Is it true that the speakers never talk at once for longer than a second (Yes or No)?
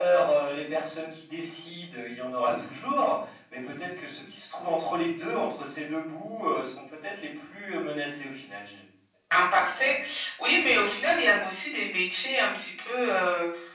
Yes